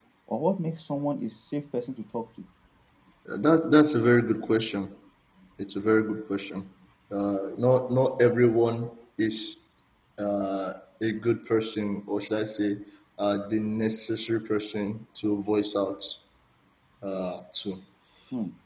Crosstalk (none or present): none